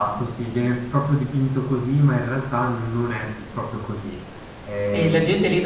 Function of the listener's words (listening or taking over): taking over